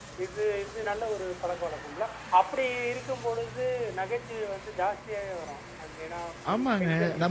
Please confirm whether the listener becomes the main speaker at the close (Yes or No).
Yes